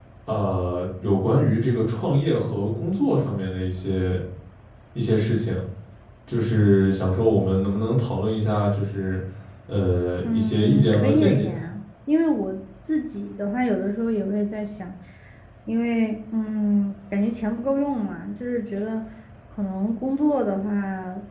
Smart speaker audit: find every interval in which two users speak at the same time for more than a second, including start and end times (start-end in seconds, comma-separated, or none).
10.2-11.5